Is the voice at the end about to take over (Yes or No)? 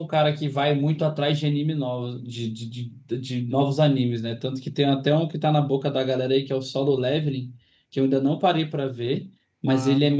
No